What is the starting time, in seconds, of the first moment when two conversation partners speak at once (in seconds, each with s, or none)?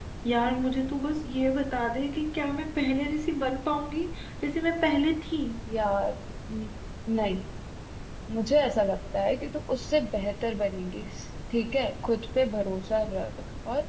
none